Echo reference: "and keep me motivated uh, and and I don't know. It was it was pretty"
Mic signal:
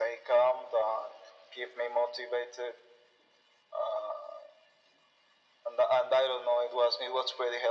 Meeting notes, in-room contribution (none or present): none